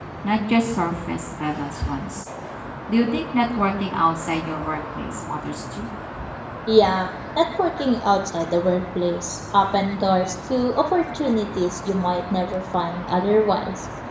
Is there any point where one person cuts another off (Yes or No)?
No